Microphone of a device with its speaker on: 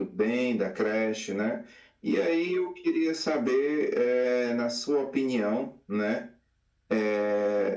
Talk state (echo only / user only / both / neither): echo only